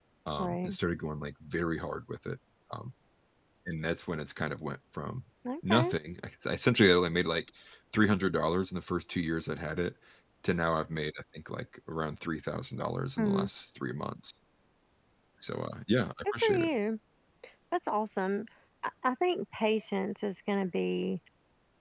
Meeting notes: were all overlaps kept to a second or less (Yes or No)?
Yes